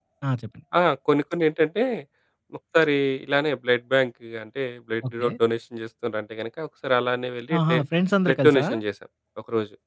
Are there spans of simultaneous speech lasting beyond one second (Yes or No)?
No